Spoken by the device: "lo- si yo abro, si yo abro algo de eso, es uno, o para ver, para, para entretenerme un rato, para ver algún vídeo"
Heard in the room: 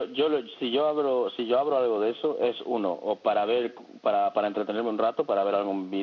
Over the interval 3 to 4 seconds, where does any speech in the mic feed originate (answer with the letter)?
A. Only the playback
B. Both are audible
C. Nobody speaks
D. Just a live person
A